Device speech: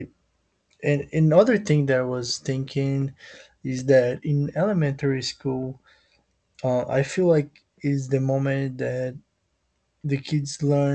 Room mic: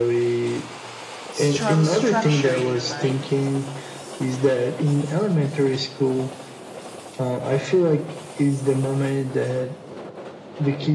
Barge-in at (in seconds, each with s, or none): 1.3 s